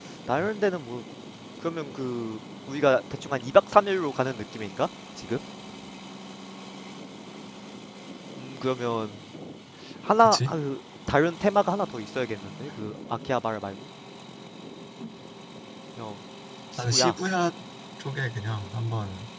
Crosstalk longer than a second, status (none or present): none